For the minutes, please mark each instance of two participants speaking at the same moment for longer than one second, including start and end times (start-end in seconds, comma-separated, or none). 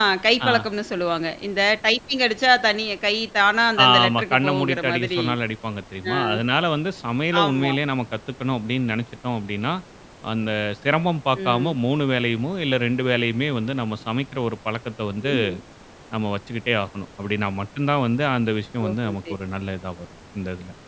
3.9-5.2